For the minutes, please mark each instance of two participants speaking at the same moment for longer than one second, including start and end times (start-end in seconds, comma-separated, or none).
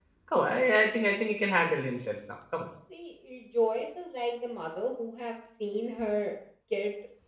none